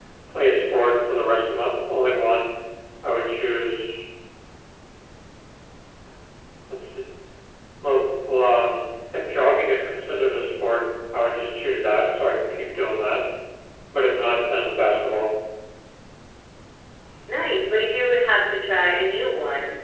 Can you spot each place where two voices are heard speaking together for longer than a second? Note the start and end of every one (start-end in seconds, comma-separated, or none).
none